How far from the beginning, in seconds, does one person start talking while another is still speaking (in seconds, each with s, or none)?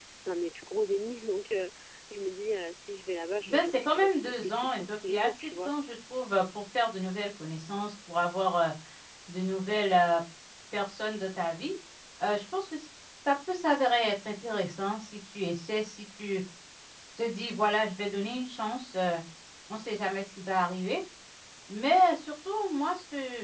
3.5 s